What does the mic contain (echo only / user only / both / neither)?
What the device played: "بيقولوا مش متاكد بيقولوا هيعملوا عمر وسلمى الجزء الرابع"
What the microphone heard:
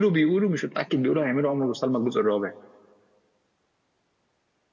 echo only